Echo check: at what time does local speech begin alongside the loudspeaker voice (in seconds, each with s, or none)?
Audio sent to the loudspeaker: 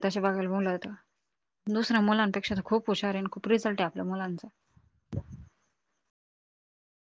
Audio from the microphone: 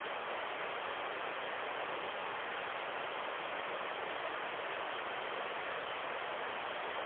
none